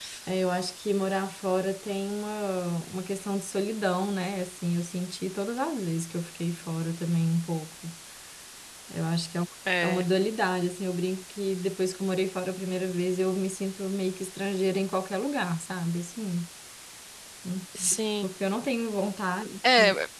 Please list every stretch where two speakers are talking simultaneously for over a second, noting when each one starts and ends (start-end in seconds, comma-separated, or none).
none